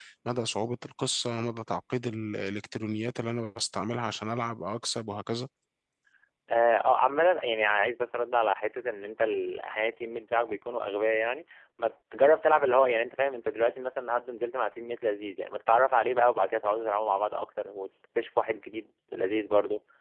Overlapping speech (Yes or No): No